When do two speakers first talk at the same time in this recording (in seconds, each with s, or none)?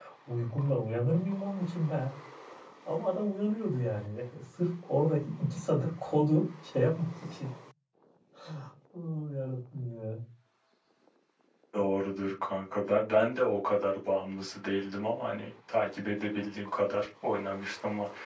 none